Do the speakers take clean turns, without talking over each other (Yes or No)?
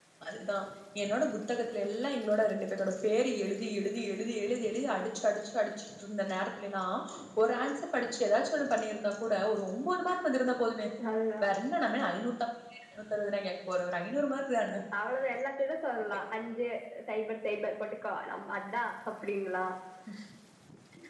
Yes